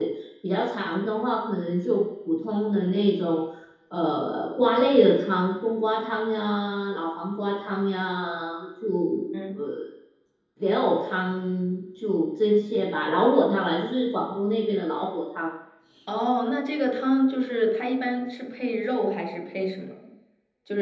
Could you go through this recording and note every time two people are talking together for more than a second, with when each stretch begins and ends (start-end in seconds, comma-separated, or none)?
none